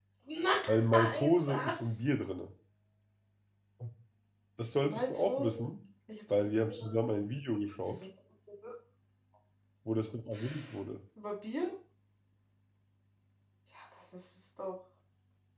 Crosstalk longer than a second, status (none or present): present